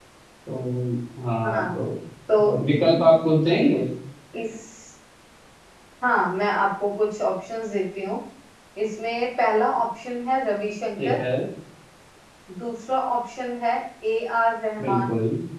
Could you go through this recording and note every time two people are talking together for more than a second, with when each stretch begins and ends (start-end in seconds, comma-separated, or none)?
none